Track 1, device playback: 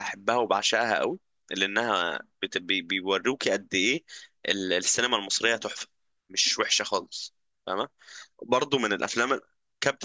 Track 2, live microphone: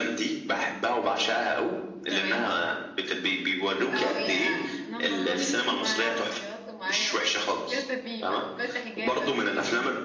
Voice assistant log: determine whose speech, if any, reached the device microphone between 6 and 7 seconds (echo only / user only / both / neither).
both